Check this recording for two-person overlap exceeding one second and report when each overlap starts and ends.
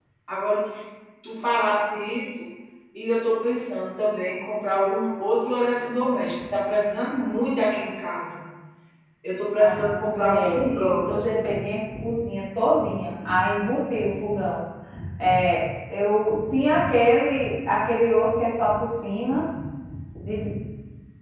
9.6-11.1

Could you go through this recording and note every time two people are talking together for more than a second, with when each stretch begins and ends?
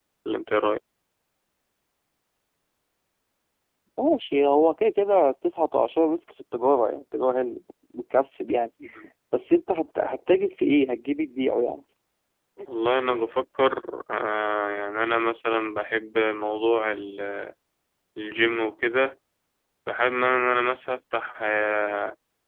none

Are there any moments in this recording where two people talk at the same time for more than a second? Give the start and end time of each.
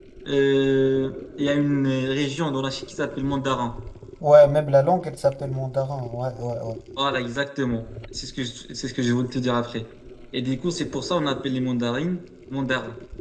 none

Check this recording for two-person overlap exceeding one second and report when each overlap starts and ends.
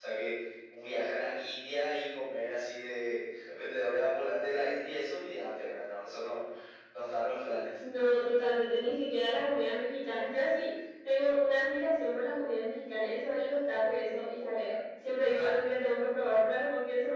none

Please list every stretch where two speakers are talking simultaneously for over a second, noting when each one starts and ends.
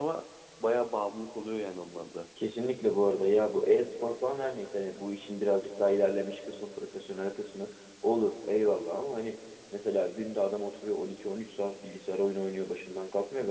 none

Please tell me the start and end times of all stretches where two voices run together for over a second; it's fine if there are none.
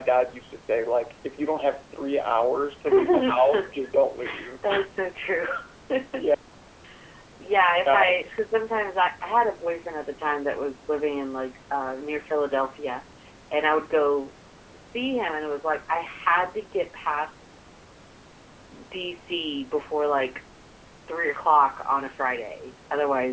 none

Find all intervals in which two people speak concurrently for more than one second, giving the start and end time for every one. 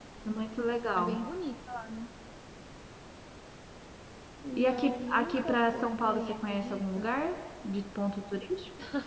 4.5-7.1

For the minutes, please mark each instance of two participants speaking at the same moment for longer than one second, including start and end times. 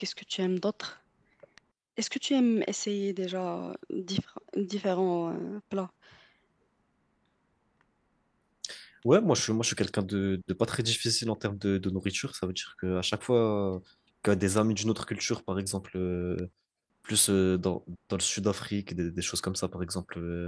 none

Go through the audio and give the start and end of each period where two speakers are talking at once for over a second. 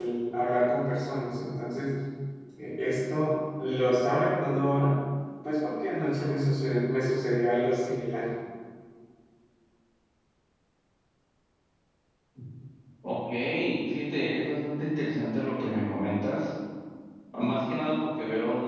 none

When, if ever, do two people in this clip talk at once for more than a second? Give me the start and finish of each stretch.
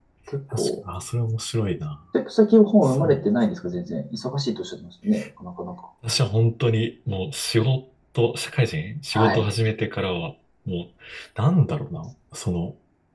none

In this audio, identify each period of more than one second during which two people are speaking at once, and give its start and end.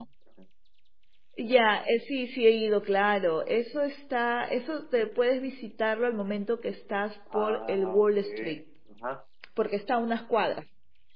7.3-8.6

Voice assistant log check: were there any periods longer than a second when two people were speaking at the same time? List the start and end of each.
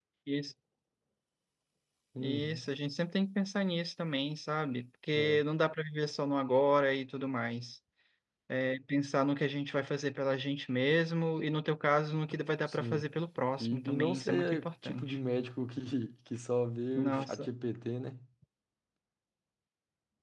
13.6-15.1

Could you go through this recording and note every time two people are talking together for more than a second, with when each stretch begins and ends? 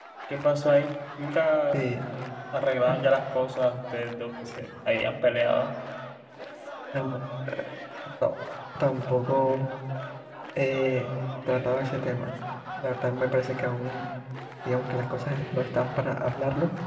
none

